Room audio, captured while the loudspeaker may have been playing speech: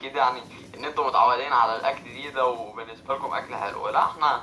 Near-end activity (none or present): none